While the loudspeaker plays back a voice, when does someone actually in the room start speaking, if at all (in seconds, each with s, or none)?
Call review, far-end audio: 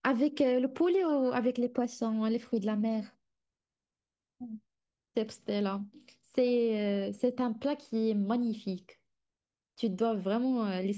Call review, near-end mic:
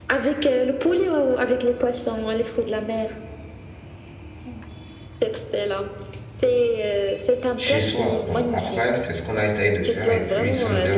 7.5 s